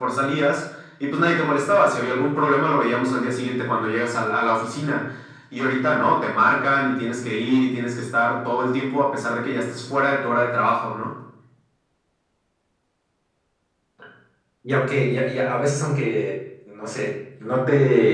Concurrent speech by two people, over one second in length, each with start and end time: none

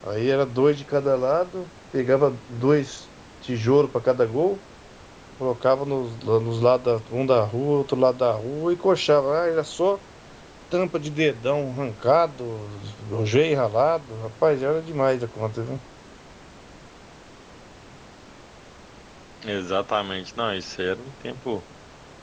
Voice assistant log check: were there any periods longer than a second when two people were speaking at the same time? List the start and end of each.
none

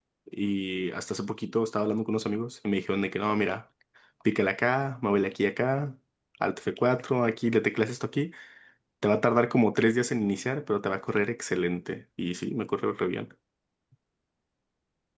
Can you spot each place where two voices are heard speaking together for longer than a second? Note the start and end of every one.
none

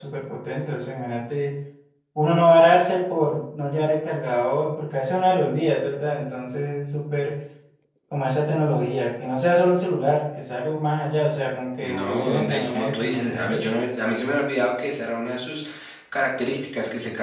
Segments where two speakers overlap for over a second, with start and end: 11.8-13.7

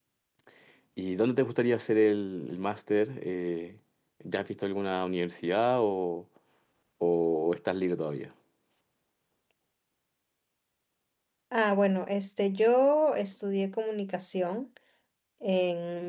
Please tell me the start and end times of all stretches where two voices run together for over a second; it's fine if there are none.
none

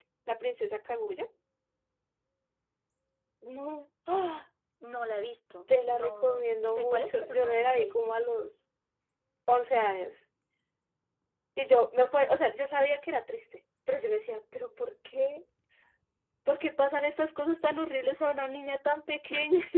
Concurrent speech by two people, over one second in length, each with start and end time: 5.9-8.0

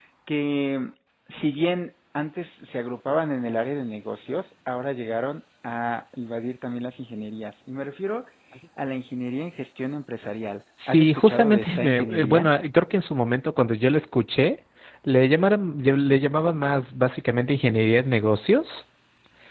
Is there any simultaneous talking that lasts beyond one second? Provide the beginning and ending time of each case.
10.9-12.5

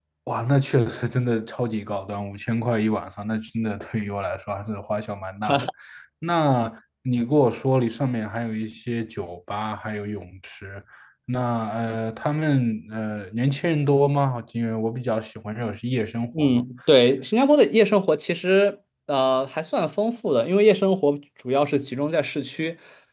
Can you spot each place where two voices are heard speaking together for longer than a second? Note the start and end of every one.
none

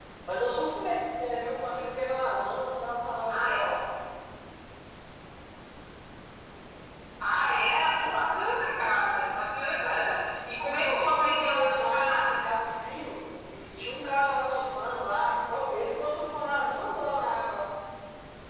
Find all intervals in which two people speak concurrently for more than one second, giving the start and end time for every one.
10.6-12.4

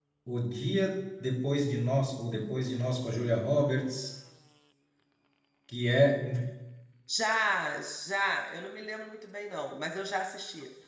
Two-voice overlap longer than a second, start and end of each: none

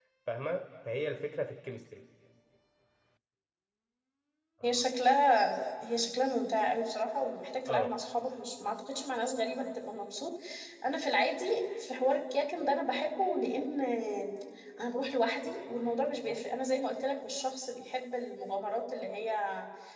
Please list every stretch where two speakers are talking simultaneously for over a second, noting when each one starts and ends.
none

